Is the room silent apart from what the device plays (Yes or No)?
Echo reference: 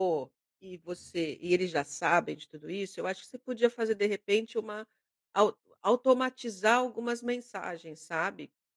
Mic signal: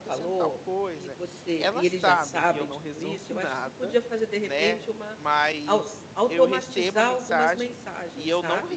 No